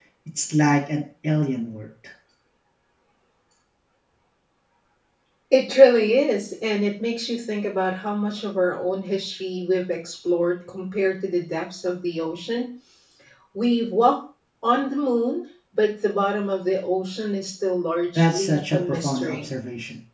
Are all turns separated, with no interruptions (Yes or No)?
No